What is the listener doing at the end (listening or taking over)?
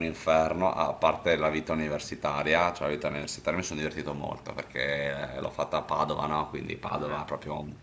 listening